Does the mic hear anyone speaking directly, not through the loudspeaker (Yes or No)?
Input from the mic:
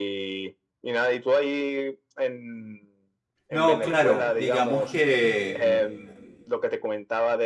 Yes